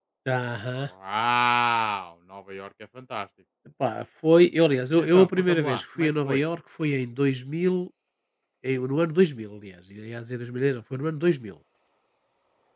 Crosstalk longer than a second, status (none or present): present